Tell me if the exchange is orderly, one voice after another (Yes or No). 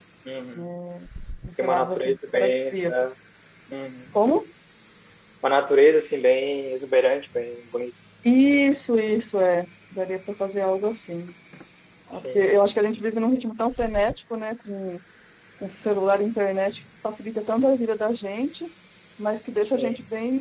No